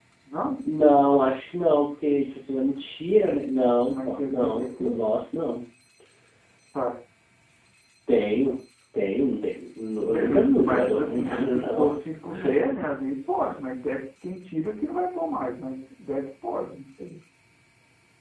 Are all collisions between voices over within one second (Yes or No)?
No